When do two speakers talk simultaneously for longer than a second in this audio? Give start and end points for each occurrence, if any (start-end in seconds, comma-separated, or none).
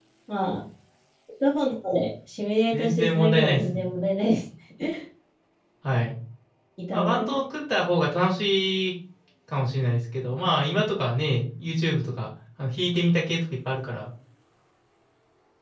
2.7-3.9